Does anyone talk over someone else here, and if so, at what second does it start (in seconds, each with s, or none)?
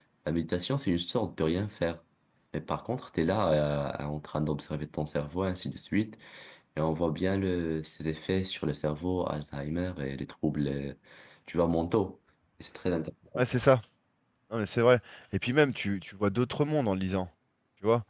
none